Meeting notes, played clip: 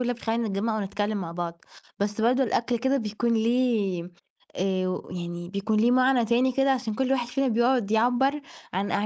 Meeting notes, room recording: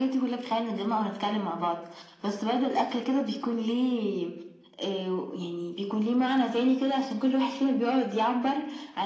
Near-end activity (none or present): none